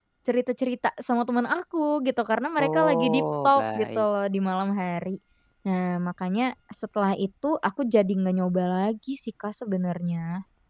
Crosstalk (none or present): present